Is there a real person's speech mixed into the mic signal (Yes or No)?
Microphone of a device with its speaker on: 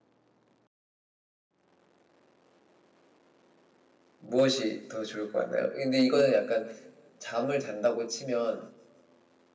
Yes